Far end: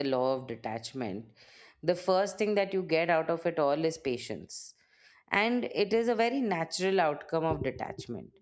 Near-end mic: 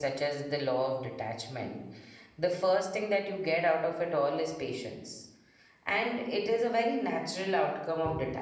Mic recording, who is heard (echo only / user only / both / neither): echo only